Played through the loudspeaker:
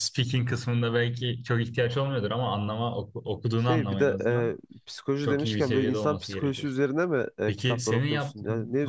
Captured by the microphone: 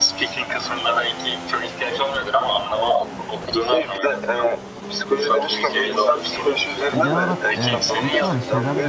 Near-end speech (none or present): present